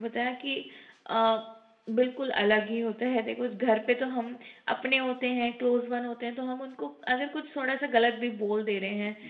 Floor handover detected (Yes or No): No